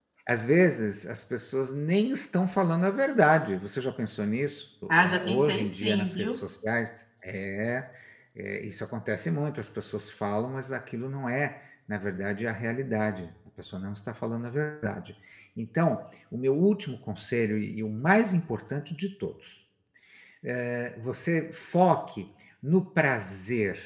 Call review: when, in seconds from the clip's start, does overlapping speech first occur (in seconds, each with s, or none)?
4.9 s